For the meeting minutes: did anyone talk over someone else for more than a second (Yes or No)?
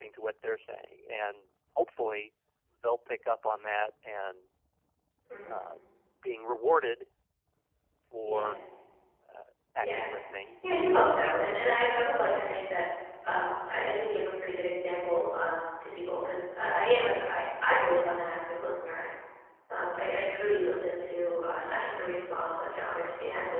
Yes